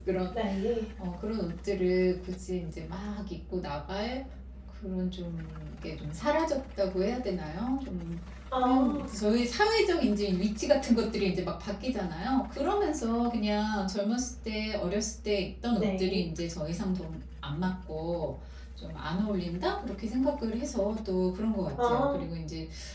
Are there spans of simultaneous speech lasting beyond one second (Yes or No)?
No